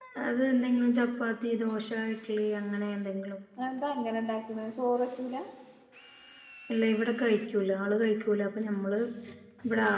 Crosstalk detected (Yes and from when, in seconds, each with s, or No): No